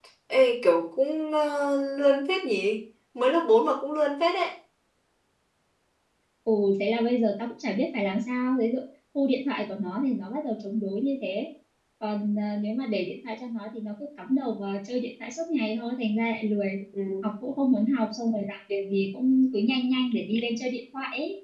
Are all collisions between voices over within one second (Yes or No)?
Yes